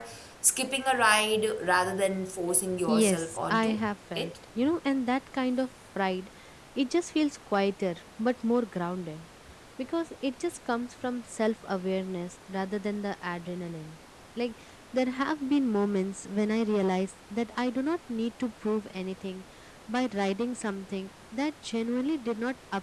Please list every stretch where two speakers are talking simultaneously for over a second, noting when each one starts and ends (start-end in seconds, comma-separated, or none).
2.9-4.3